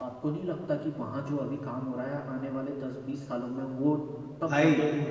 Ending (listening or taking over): taking over